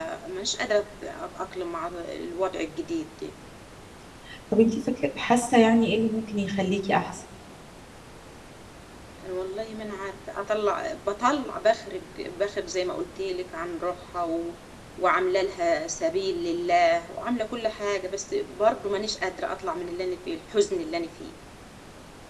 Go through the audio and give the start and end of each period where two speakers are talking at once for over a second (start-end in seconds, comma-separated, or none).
none